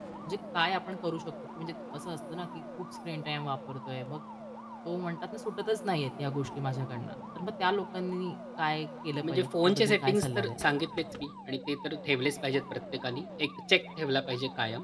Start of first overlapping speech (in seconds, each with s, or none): 9.2 s